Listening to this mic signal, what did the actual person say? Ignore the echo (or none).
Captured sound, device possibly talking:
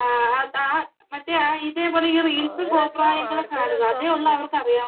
ആ രസം അവർ ക്കെ രസാണ്